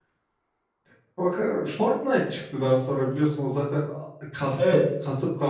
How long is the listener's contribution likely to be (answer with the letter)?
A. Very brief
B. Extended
A